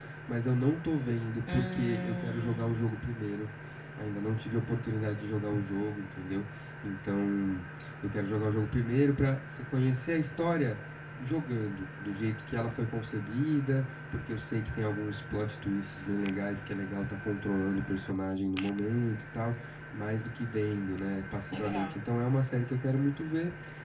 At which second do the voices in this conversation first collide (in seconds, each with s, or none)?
1.5 s